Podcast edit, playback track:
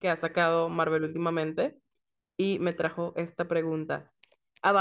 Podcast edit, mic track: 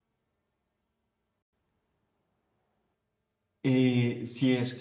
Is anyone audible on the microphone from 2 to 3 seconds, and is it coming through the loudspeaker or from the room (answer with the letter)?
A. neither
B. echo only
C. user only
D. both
A